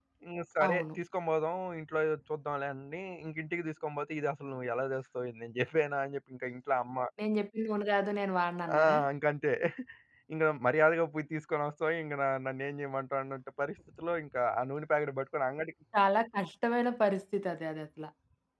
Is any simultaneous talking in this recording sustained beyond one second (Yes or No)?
No